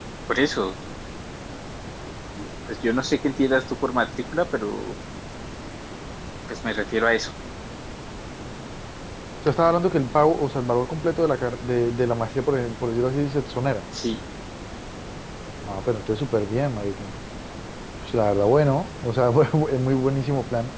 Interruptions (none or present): none